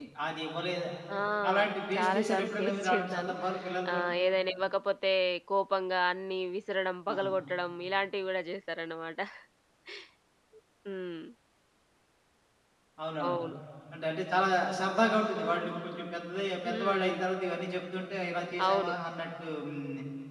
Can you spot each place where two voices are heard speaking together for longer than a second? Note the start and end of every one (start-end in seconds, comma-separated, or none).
1.9-3.3